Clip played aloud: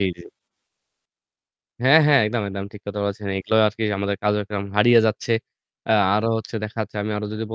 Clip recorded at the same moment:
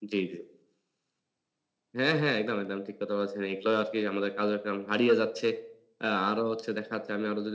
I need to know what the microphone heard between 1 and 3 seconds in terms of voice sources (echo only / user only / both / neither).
echo only